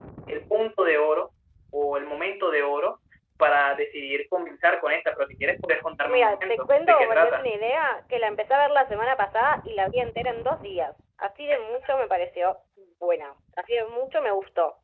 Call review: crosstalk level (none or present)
present